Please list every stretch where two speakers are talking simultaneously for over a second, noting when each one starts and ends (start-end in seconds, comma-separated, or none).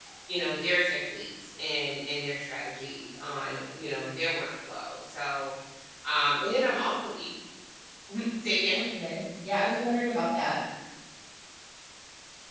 none